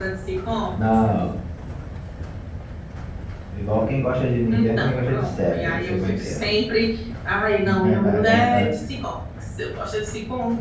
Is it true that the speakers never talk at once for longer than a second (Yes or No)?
No